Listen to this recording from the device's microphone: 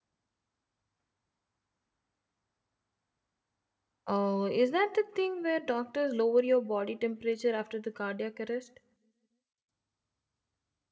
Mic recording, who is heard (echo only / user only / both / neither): user only